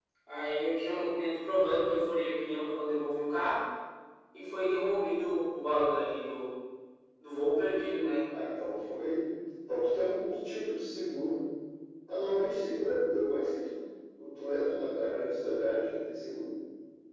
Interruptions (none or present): none